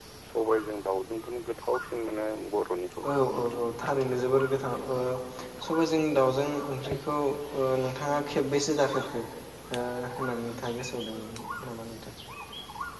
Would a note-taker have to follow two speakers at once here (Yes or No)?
No